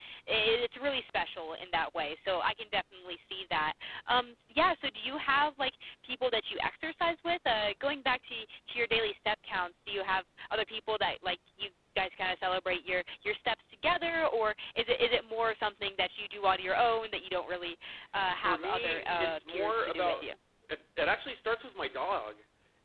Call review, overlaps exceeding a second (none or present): present